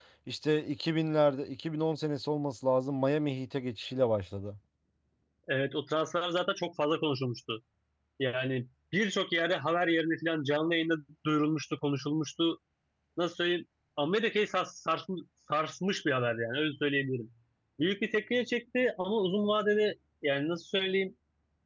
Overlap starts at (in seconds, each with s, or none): none